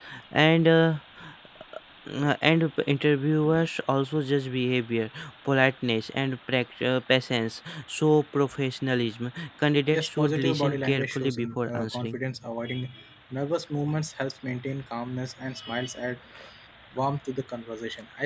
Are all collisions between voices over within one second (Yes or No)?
No